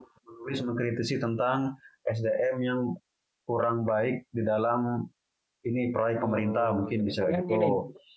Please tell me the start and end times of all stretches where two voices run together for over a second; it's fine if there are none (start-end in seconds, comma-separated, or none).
6.2-7.7